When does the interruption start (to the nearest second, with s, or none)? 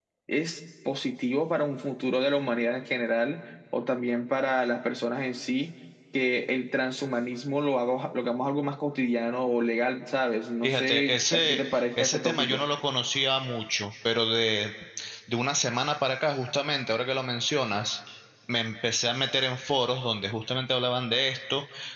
11 s